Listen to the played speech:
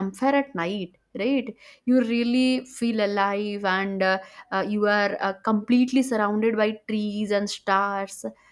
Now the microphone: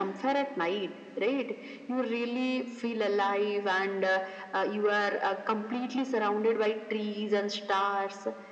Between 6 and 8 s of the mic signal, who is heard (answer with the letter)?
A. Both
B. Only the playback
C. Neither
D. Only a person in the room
B